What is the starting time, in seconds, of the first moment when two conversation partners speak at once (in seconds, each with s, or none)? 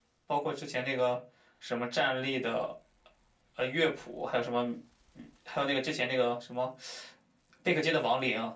none